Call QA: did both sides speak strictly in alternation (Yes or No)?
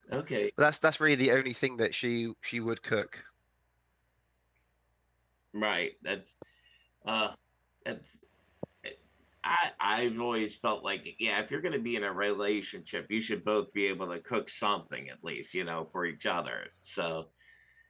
Yes